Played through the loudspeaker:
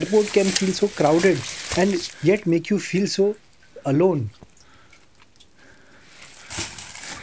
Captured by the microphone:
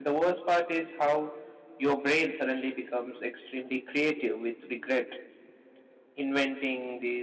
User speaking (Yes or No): Yes